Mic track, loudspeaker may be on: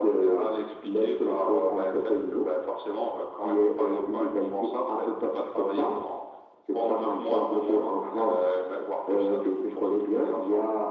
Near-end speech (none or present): none